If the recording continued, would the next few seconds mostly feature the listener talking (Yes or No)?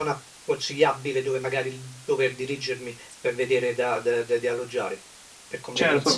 Yes